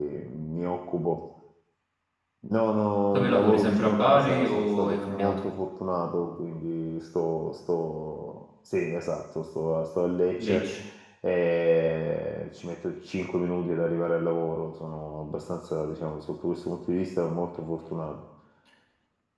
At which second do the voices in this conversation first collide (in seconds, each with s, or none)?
3.1 s